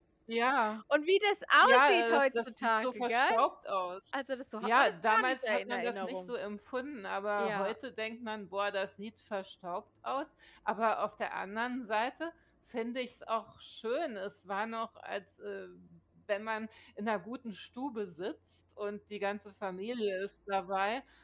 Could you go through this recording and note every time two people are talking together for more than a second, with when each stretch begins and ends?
1.6-3.2, 4.6-6.3

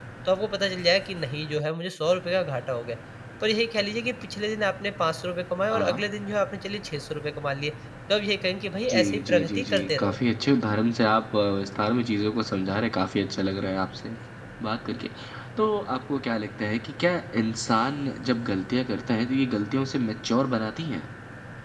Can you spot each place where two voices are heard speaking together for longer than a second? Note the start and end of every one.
8.9-10.2

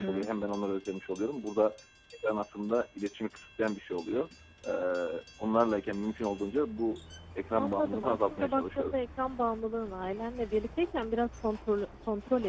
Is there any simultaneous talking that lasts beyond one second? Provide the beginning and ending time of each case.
7.5-9.0

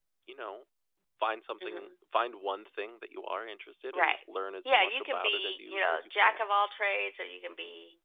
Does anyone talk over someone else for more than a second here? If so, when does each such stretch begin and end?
4.6-6.4

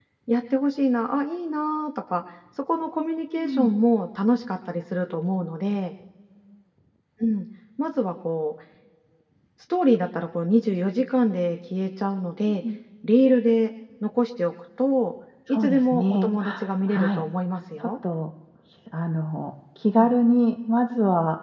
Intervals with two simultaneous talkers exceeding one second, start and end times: 15.5-17.2

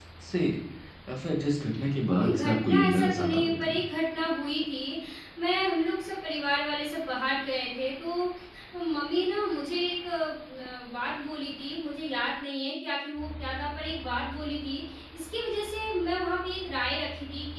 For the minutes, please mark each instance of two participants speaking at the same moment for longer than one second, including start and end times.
2.2-3.8

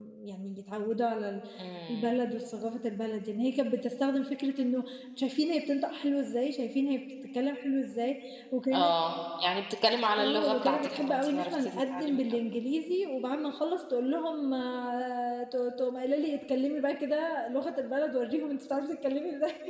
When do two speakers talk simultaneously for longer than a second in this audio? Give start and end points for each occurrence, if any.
10.2-12.2

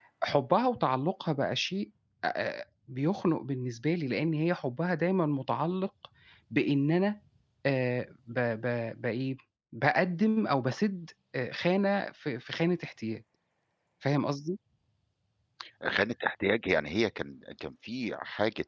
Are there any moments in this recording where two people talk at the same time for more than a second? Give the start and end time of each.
none

